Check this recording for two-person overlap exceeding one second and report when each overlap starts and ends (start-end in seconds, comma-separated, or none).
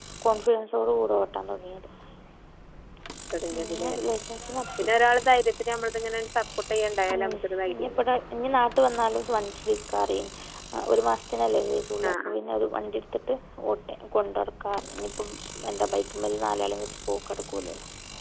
none